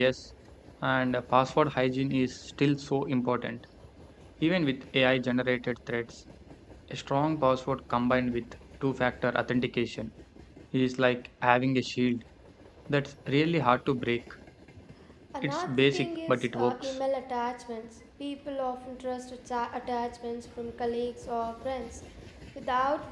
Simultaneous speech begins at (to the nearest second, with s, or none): 15 s